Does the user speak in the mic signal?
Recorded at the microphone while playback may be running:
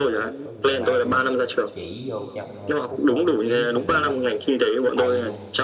Yes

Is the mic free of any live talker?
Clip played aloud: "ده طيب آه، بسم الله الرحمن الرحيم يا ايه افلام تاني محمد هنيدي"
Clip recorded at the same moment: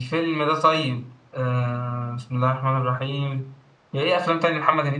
Yes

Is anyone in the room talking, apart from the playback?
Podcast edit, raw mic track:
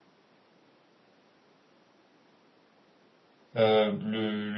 Yes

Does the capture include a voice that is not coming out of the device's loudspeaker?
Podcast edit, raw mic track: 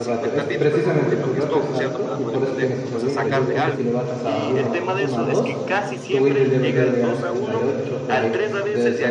Yes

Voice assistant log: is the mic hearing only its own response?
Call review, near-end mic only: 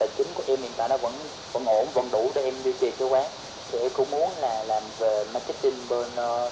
Yes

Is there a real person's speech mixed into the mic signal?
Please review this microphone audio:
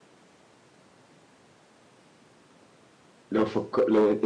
Yes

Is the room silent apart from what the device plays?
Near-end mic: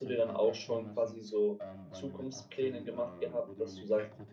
No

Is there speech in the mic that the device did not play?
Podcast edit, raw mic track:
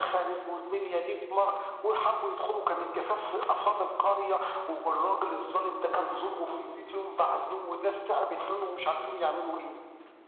No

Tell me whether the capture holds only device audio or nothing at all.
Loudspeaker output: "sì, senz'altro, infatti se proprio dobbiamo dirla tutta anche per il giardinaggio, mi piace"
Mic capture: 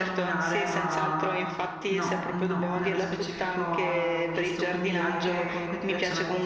No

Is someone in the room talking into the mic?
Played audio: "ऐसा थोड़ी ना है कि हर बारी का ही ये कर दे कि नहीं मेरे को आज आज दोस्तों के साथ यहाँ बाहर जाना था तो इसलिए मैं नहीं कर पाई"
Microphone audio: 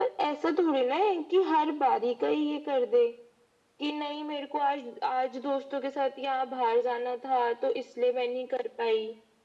No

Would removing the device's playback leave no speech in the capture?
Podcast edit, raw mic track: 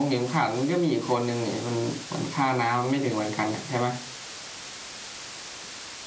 Yes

